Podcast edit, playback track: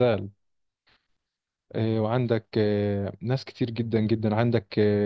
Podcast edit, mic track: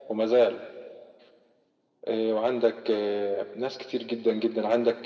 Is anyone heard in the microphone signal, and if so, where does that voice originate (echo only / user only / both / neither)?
echo only